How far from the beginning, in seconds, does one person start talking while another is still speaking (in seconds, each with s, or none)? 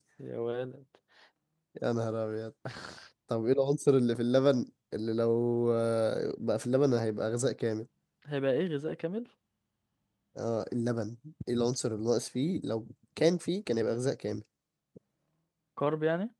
none